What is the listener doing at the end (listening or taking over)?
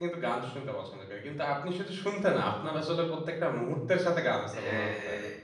taking over